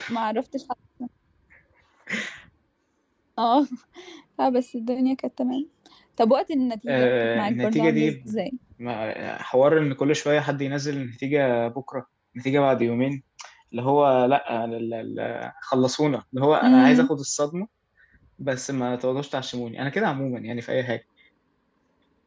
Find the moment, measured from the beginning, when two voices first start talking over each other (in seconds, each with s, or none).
6.9 s